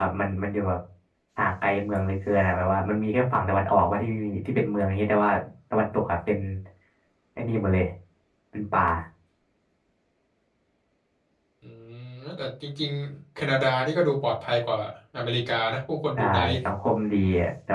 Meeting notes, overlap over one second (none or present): none